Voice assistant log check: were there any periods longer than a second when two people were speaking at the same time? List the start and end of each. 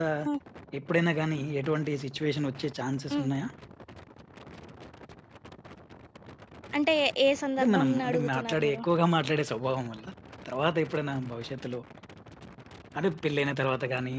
7.6-8.8

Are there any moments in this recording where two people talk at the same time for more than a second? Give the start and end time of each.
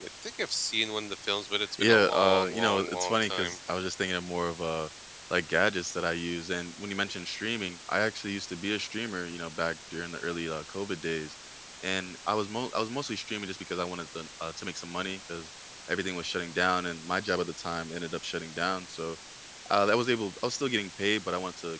1.8-3.6

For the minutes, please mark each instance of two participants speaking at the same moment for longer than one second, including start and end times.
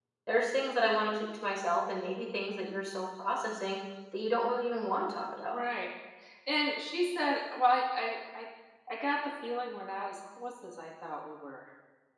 none

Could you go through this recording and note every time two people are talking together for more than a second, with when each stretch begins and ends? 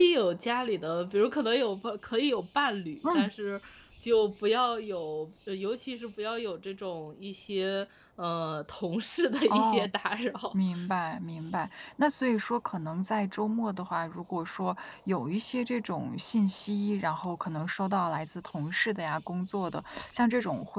none

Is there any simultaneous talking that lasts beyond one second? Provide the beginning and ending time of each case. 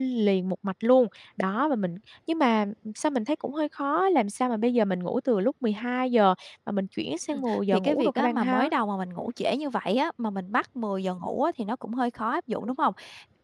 7.3-8.7

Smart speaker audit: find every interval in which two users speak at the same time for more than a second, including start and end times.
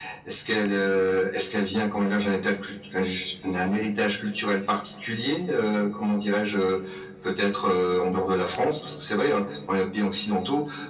none

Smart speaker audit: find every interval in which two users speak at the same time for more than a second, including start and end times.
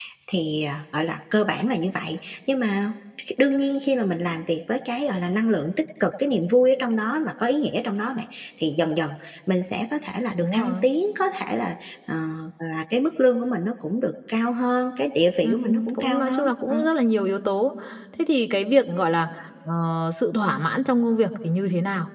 15.6-16.9

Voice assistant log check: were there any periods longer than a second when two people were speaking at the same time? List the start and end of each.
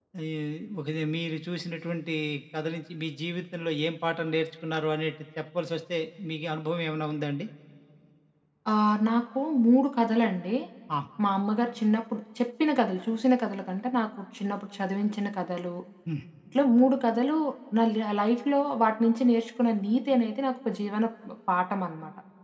none

